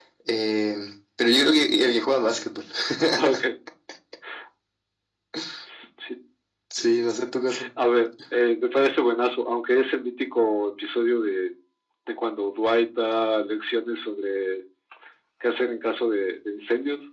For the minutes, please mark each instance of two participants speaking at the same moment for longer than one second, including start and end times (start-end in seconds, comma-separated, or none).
none